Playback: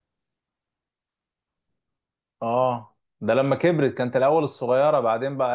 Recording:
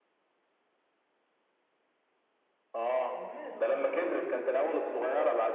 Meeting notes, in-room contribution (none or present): present